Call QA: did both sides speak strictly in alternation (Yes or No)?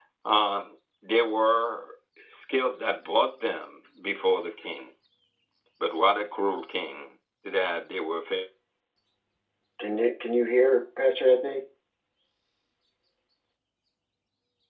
Yes